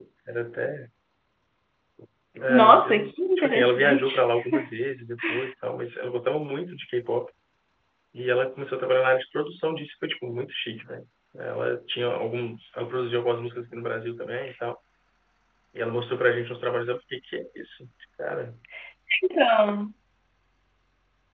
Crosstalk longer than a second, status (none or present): present